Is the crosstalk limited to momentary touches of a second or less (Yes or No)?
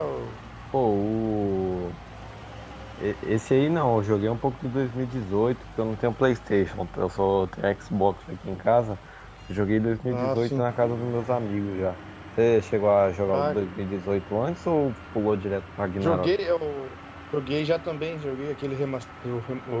Yes